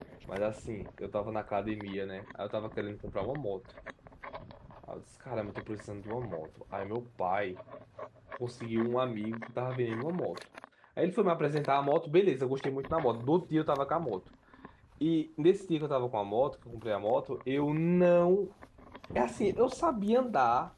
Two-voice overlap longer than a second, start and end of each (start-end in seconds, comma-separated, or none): none